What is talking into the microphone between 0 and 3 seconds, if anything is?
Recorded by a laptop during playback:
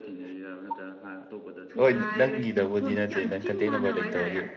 both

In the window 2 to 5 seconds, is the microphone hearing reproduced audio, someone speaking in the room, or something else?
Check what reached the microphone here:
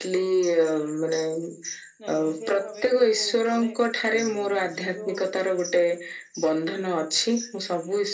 both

